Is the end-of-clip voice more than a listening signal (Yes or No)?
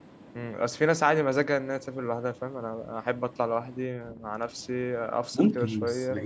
Yes